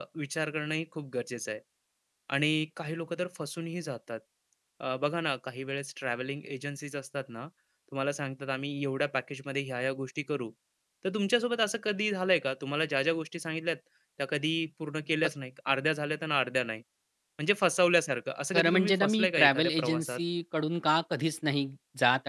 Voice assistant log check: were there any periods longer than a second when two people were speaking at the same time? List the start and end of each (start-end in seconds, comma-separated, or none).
18.5-20.2